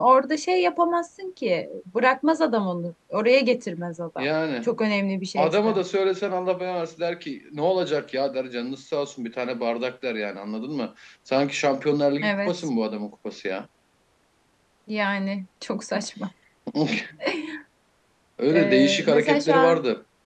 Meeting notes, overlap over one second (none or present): present